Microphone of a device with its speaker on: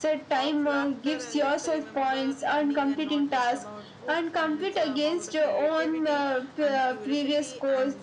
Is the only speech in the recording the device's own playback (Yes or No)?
No